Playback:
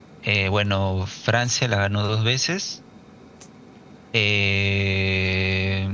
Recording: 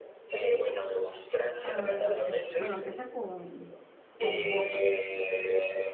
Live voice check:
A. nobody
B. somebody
B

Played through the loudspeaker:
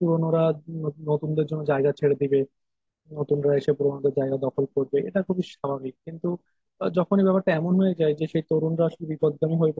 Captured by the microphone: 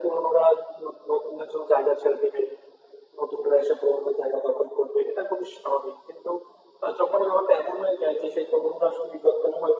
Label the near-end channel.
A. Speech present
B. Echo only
B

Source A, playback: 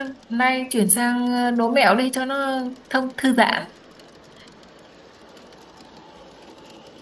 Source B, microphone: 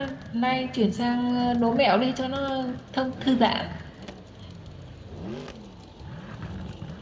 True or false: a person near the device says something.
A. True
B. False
B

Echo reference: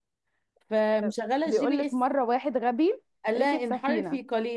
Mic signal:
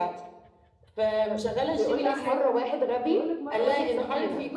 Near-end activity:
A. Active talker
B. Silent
A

